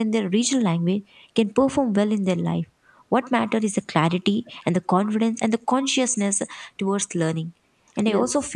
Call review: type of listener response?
listening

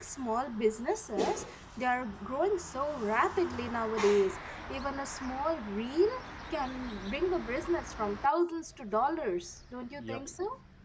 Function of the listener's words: taking over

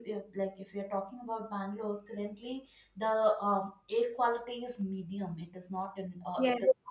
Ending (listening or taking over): listening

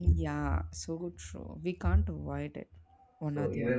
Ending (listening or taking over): taking over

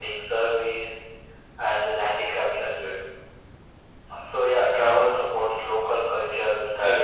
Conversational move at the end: listening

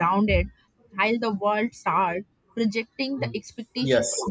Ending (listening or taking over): taking over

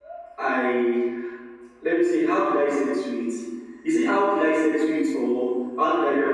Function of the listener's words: taking over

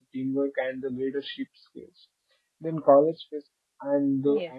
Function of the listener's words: listening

